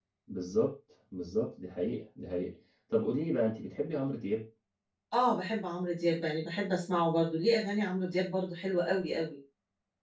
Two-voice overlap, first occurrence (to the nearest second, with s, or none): none